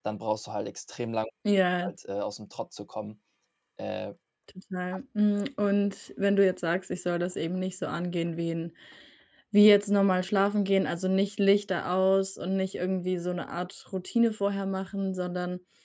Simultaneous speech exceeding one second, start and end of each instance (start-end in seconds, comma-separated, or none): none